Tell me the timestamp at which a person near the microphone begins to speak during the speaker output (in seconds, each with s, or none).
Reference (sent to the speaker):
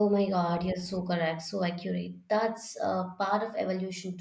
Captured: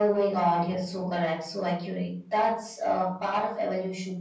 none